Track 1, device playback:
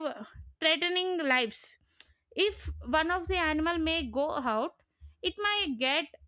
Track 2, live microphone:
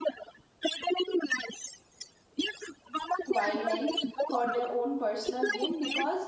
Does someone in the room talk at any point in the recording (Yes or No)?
Yes